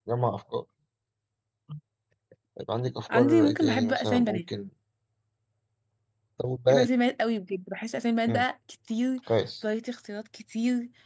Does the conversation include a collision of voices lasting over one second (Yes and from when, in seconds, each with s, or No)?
Yes, from 3.1 s